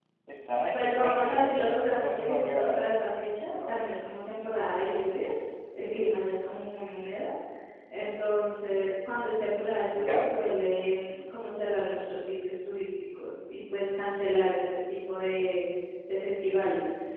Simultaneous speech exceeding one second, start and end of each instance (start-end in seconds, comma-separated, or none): 0.7-2.9